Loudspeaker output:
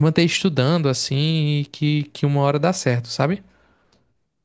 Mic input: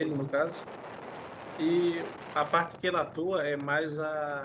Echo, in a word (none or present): none